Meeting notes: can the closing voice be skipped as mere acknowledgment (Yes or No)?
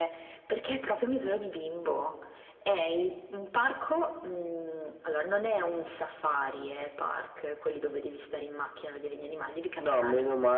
No